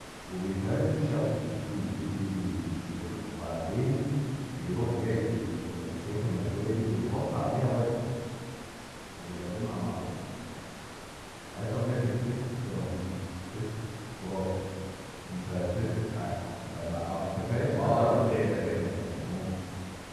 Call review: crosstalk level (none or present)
present